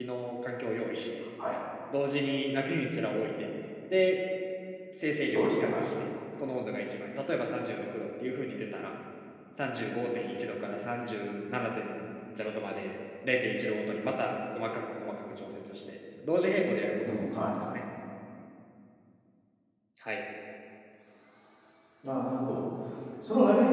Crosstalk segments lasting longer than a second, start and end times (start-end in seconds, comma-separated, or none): none